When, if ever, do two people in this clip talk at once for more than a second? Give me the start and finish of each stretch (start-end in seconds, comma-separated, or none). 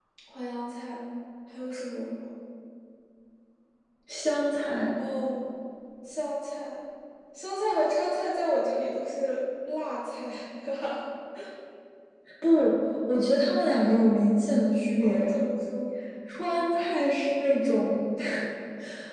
none